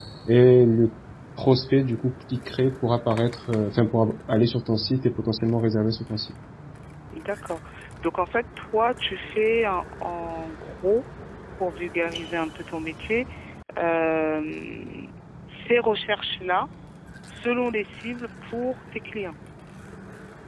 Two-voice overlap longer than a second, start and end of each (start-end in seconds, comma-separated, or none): none